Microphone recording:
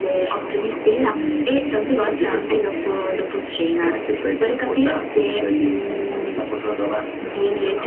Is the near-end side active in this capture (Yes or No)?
No